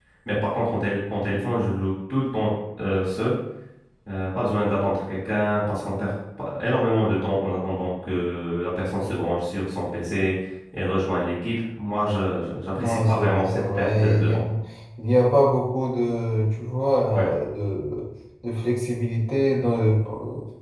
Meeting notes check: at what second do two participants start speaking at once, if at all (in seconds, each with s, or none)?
12.8 s